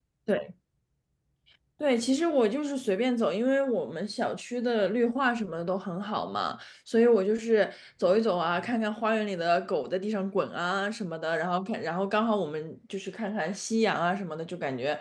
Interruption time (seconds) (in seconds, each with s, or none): none